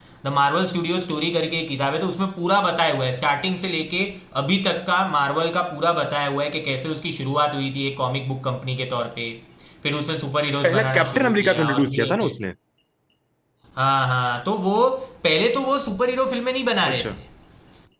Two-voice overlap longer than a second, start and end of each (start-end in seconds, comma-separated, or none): 10.6-12.3